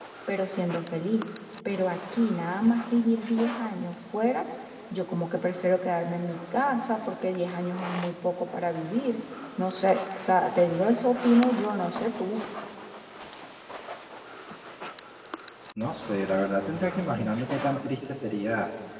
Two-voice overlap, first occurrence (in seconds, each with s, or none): none